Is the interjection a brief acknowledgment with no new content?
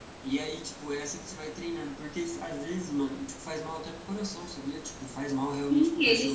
No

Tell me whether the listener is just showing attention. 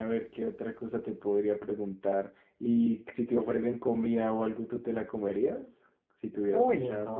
No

